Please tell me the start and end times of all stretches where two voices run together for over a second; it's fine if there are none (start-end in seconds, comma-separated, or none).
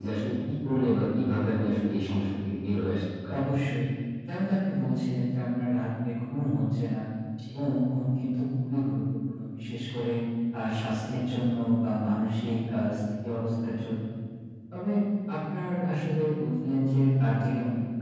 none